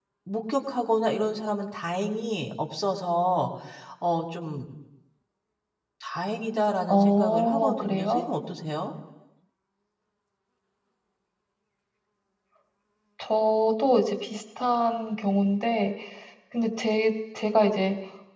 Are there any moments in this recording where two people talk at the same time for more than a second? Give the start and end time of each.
6.9-8.2

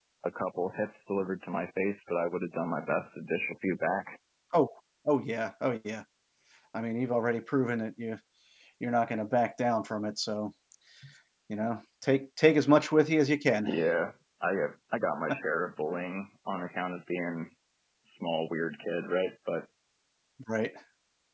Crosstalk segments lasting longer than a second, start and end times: none

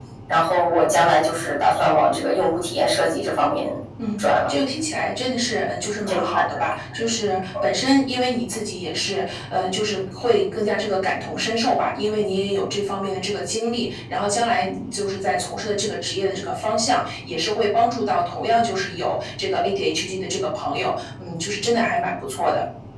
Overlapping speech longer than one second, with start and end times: none

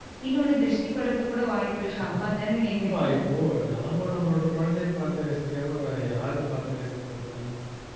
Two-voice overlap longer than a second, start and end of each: none

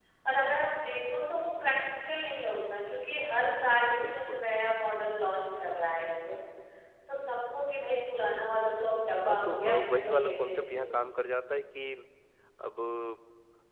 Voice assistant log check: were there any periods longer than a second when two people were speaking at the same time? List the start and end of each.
9.2-11.0

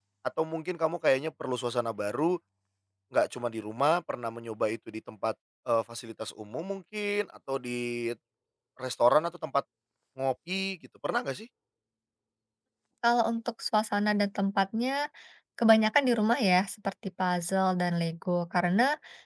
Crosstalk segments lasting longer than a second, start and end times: none

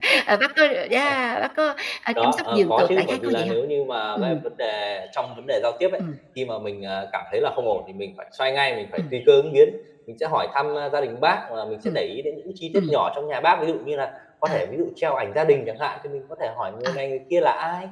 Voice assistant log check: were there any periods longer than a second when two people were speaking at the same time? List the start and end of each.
2.2-3.6

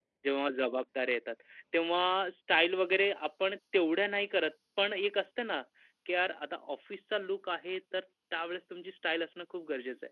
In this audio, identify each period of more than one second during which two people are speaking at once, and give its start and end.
none

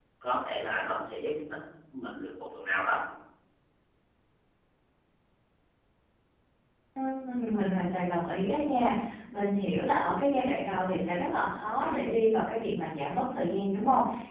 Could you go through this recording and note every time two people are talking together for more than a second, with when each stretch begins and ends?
none

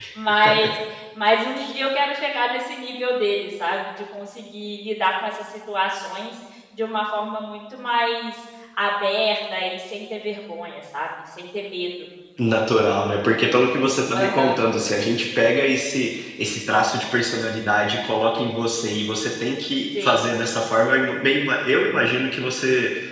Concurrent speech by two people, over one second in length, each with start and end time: none

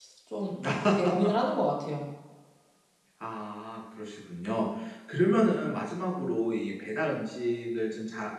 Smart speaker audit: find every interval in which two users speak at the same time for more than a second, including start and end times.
none

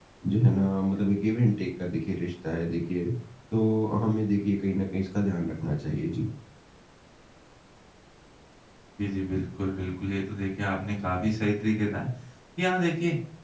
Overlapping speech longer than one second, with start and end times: none

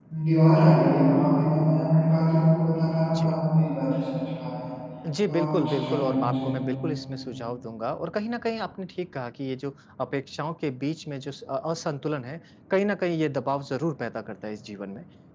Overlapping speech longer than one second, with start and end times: 5.3-6.5

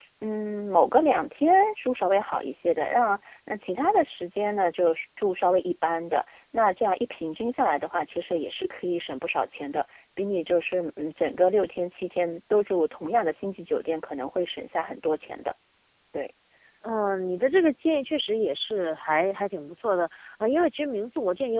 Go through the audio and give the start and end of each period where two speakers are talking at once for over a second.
none

